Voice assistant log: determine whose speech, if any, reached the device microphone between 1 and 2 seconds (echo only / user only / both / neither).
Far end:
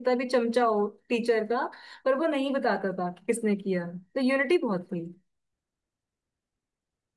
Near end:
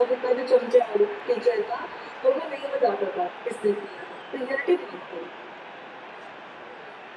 echo only